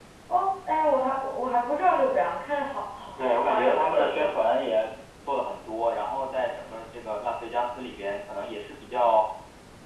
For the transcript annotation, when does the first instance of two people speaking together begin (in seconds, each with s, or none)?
3.2 s